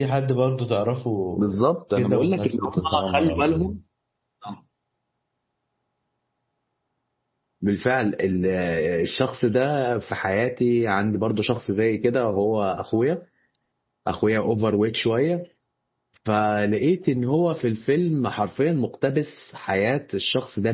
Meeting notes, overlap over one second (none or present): present